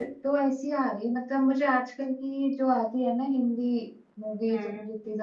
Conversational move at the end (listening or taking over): listening